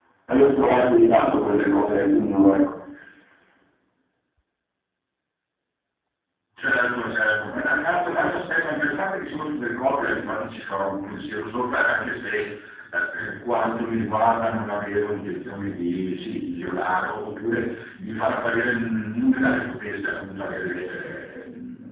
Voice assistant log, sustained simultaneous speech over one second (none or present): none